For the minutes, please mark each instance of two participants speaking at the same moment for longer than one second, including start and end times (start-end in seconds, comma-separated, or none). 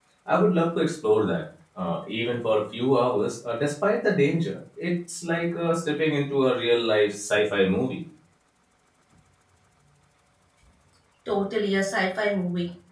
none